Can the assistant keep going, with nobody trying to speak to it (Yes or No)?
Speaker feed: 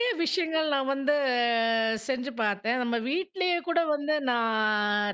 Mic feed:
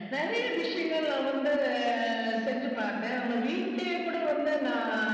Yes